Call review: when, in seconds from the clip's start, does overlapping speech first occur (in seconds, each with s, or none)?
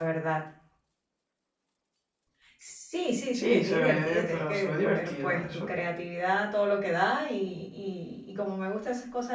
3.3 s